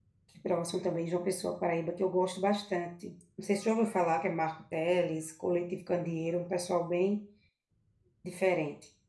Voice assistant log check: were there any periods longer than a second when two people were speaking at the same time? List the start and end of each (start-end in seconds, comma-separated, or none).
none